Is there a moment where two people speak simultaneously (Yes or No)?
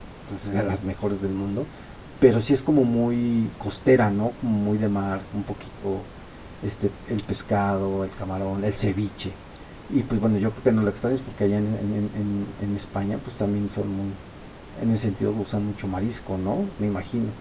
No